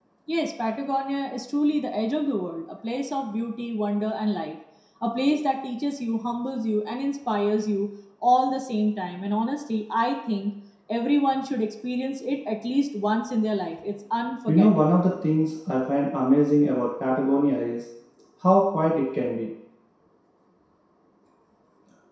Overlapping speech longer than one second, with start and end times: none

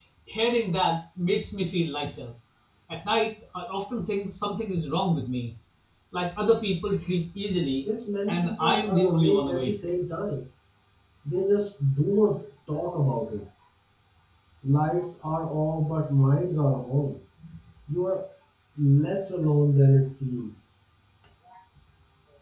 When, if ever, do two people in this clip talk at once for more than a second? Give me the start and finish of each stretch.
8.3-9.7

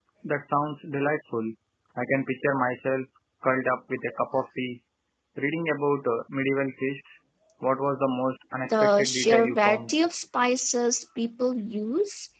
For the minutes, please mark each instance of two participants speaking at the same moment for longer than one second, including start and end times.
8.6-9.9

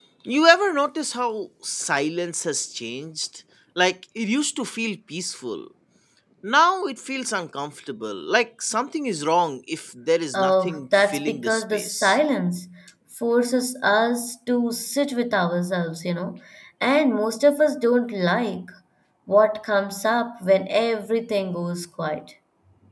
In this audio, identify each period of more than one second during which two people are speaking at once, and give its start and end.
10.3-12.2

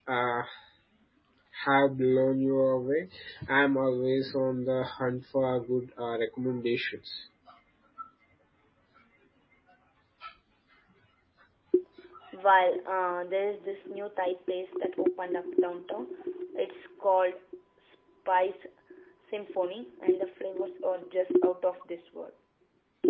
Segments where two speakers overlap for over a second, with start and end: none

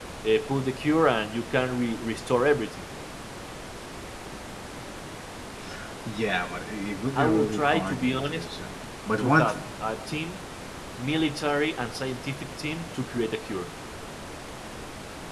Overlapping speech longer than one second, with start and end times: 7.2-8.4

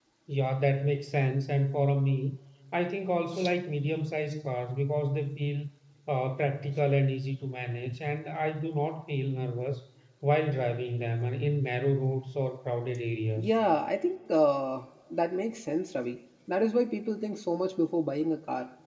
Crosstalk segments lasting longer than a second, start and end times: none

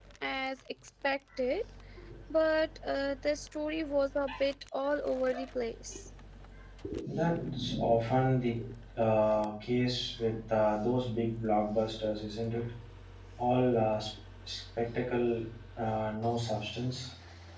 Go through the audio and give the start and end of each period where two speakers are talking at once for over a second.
none

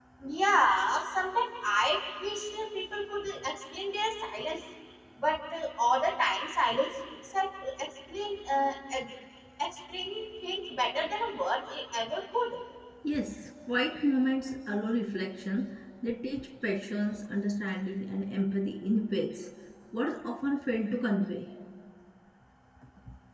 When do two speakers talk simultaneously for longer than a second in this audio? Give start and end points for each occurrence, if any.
none

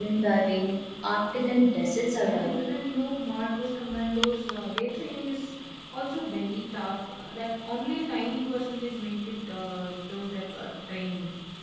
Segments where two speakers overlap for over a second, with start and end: none

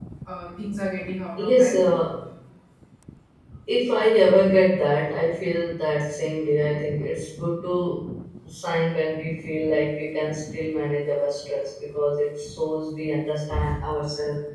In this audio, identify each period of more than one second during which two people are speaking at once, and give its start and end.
none

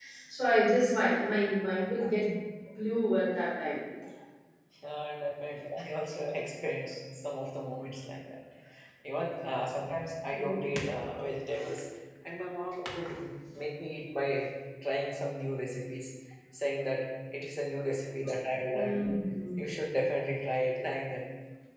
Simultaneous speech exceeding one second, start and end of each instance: none

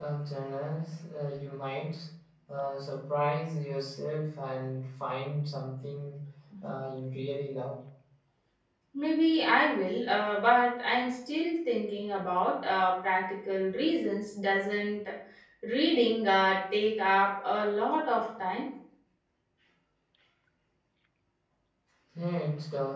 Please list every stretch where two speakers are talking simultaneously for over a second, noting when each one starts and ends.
none

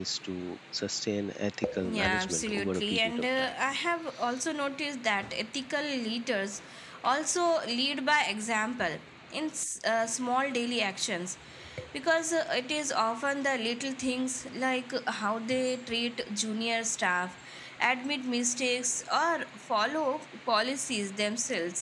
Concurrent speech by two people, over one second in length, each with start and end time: 1.9-3.5

